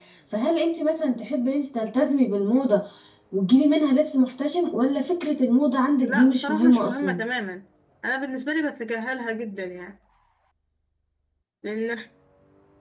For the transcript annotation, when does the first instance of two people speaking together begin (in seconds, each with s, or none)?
6.0 s